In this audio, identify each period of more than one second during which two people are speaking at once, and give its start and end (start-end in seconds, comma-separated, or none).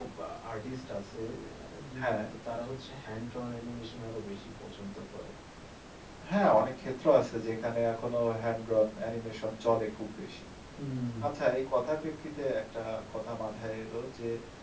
none